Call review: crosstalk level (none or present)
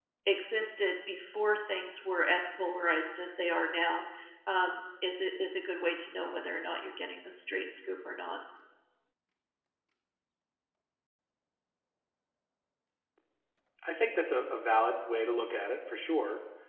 none